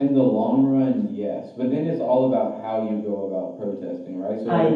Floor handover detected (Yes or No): No